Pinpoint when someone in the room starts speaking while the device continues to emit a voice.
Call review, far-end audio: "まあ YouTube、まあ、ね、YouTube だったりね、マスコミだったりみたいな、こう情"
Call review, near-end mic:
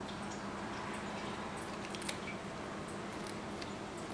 none

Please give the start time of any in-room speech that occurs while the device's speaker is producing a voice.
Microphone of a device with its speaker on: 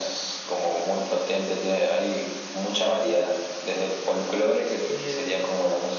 4.8 s

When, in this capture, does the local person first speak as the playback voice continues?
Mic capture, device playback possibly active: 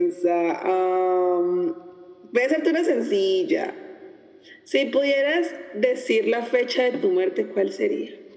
none

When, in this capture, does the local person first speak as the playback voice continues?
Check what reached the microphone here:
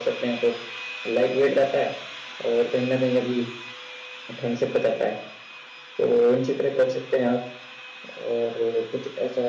none

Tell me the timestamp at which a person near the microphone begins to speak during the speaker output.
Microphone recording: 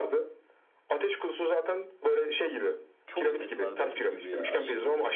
3.1 s

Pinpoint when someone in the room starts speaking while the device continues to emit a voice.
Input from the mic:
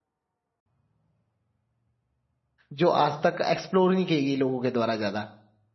2.7 s

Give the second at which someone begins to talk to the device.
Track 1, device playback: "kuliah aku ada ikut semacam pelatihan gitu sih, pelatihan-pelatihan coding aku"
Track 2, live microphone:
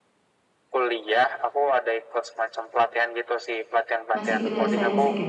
4.2 s

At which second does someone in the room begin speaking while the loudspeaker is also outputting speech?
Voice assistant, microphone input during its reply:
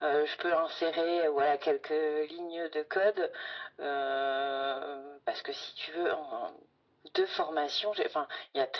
none

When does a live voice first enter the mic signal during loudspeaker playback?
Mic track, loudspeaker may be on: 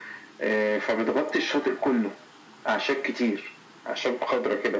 none

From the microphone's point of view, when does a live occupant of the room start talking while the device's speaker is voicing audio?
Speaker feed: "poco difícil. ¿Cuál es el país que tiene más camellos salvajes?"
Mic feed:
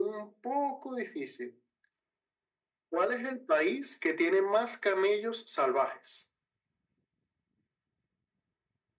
none

